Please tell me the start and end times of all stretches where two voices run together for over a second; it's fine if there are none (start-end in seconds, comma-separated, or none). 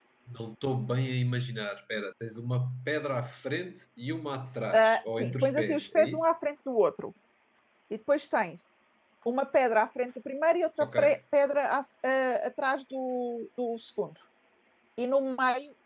4.7-6.3